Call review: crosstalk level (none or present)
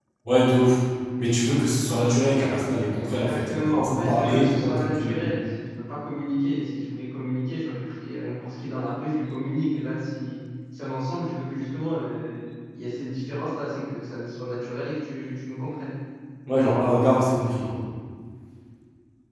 present